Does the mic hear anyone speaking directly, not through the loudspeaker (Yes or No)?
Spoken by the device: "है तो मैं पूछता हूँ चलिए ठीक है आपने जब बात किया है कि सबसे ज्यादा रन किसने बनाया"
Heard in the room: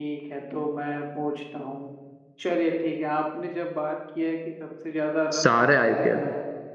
Yes